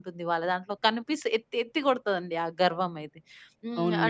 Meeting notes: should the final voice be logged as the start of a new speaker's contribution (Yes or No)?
No